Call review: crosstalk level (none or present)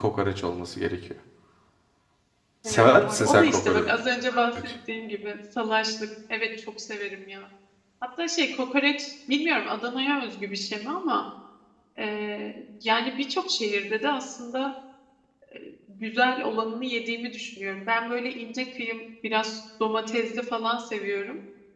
present